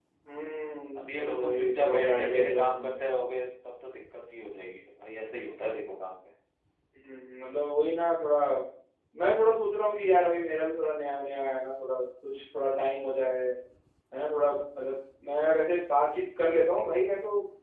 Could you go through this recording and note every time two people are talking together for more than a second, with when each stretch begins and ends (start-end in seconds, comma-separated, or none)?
1.0-3.0